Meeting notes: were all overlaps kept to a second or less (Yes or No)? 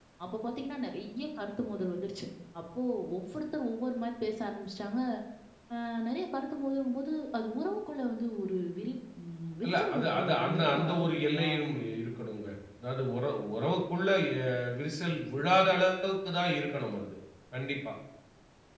No